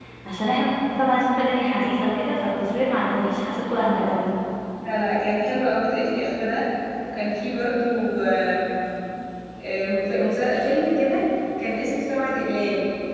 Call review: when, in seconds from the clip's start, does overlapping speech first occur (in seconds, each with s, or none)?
none